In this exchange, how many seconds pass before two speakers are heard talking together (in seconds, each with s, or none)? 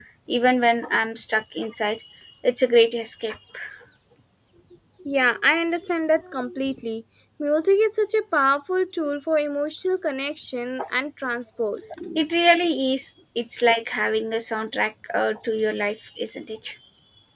none